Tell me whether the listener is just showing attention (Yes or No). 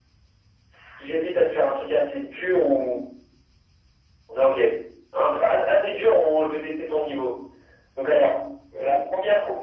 Yes